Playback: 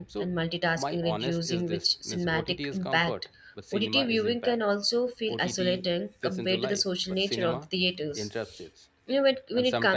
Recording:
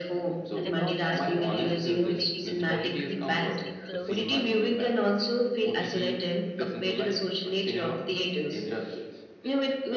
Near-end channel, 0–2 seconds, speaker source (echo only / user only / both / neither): both